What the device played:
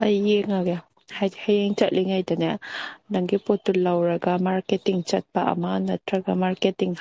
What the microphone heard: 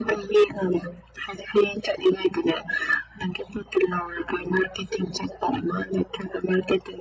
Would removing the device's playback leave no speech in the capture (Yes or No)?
Yes